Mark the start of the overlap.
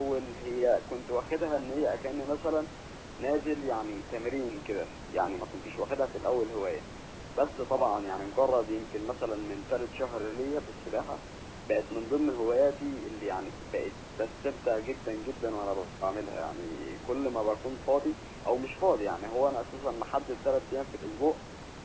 none

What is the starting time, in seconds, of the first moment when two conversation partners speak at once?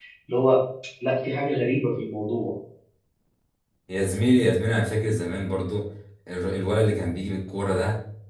none

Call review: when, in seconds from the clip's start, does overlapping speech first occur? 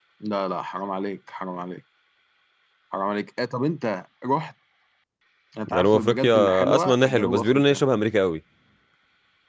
5.7 s

